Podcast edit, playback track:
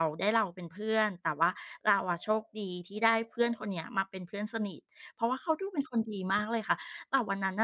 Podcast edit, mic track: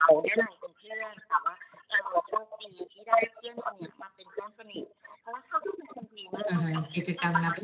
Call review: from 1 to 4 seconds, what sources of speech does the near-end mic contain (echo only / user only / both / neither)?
echo only